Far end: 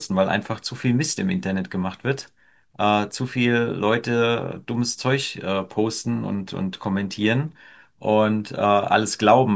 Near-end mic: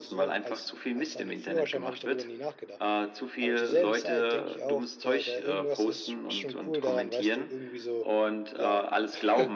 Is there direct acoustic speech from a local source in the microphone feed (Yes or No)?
Yes